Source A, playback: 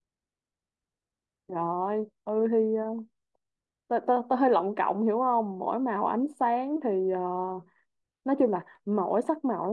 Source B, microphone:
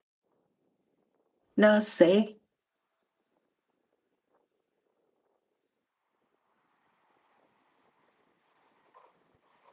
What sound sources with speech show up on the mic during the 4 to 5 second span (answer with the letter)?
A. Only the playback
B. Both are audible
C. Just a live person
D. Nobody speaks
D